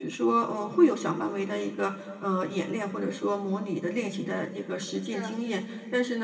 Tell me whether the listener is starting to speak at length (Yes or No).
No